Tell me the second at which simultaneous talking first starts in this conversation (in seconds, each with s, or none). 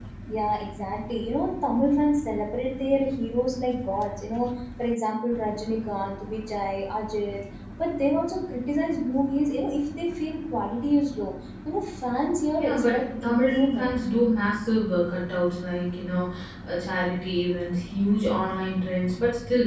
12.6 s